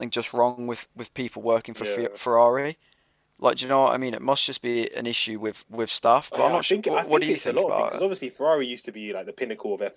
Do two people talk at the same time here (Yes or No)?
Yes